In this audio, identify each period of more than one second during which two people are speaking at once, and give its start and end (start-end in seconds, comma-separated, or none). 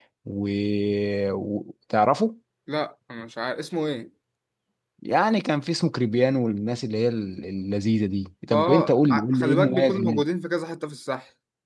8.5-10.2